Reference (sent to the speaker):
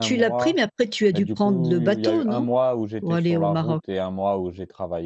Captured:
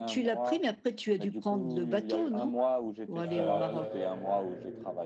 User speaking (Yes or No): Yes